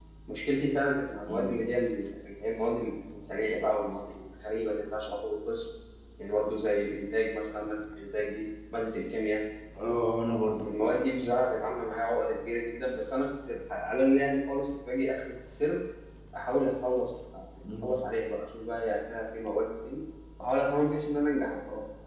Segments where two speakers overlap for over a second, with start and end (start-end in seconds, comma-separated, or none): none